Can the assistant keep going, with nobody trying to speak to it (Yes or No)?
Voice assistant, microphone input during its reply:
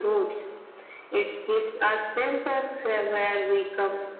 Yes